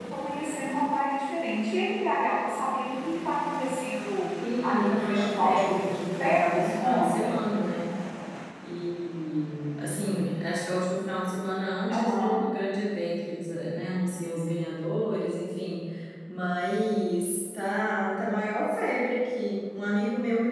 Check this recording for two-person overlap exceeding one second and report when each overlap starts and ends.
4.6-7.3

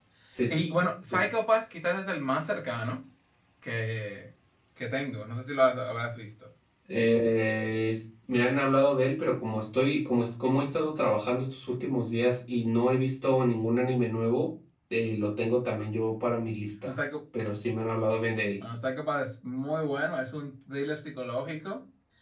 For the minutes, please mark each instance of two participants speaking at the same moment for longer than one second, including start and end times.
none

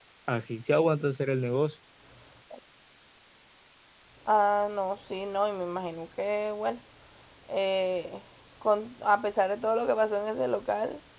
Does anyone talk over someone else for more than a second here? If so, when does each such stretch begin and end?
none

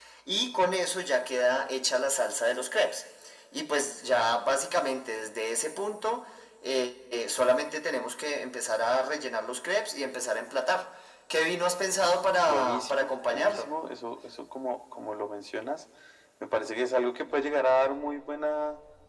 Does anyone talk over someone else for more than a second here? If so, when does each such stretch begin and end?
12.5-13.7

